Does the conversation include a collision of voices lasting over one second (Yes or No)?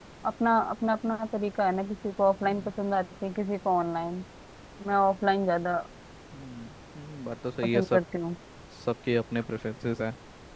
No